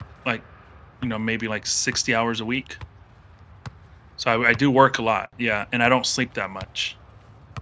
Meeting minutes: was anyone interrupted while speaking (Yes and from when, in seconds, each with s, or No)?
No